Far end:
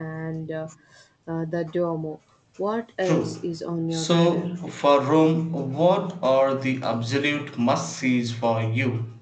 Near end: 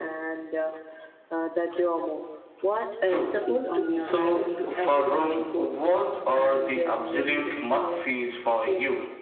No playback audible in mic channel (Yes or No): No